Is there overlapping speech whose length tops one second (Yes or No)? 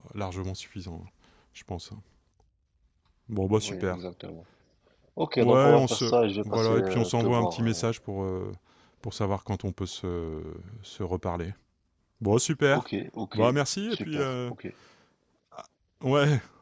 Yes